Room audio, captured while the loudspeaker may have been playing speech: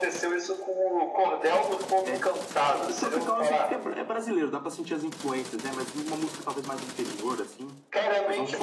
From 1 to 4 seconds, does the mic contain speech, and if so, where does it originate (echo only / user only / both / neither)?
both